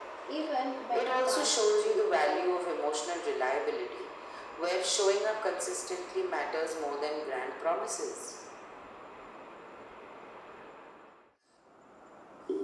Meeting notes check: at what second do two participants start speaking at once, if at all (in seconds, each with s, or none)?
0.9 s